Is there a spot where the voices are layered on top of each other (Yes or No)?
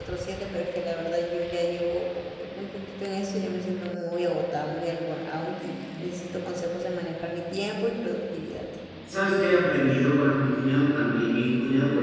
No